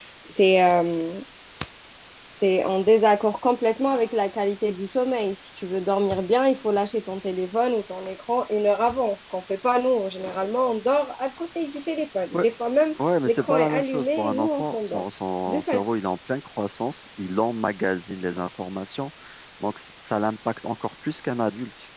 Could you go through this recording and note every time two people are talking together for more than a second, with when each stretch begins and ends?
13.3-15.0

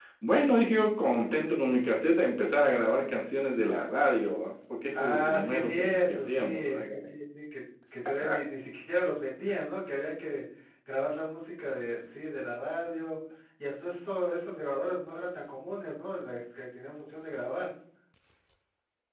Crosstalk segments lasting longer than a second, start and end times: 4.9-6.8

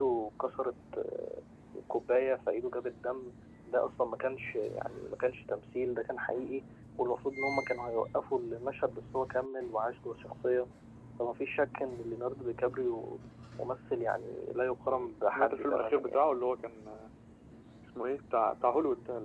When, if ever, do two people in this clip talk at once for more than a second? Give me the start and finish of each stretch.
14.9-16.2

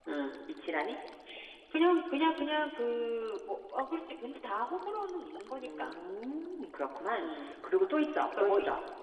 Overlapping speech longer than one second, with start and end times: none

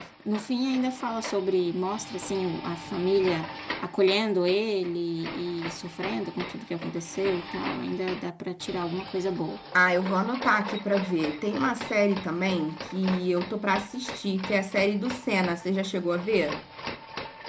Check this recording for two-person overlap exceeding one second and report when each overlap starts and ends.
none

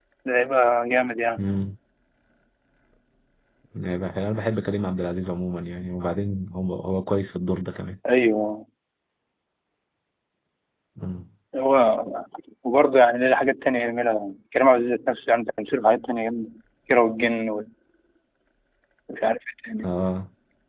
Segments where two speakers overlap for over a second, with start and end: none

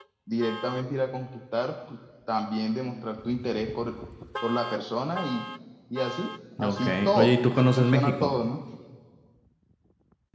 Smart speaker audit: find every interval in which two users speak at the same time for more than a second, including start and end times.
6.6-8.3

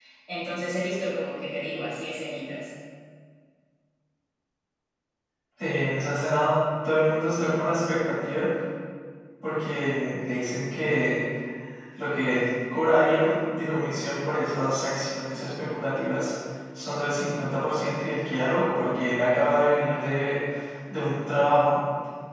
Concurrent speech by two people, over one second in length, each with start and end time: none

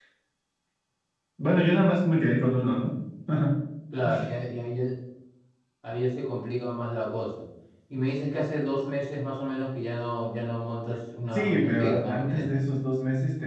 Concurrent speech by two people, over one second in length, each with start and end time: 11.3-12.6

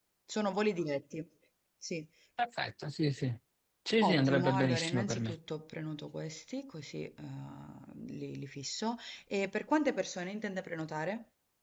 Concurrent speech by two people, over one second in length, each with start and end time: 4.0-5.4

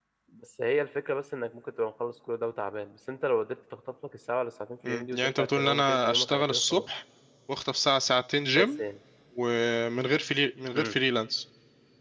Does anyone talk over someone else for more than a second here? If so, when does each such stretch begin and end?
4.9-6.8

